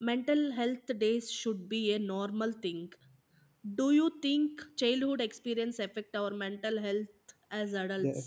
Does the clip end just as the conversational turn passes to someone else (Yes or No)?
Yes